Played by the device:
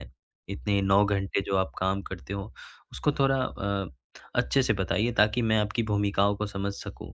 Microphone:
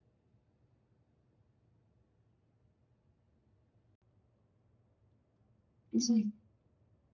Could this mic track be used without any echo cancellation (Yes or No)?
Yes